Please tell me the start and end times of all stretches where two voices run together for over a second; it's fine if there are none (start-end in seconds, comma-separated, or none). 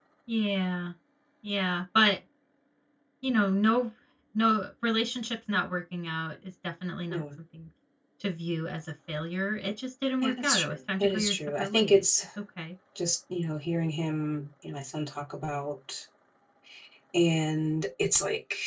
10.2-12.1